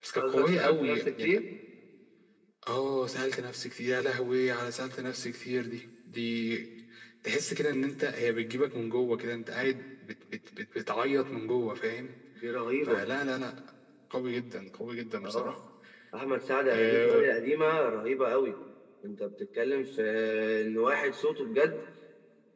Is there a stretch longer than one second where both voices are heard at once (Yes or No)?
Yes